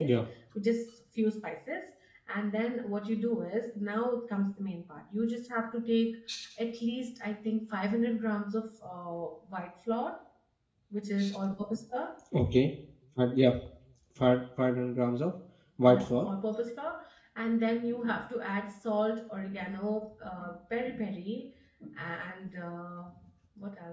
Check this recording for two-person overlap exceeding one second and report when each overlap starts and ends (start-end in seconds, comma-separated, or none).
none